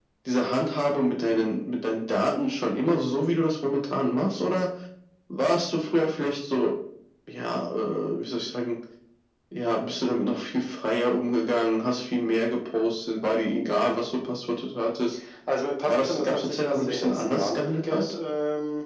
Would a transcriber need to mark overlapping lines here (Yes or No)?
Yes